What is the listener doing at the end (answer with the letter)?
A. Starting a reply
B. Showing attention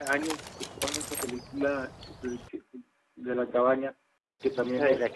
A